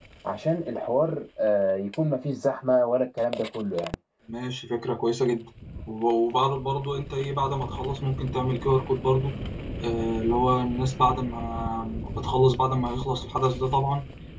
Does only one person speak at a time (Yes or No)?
Yes